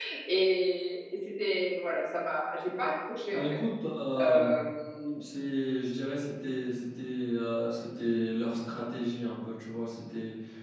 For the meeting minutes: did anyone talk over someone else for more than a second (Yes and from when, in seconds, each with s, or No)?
No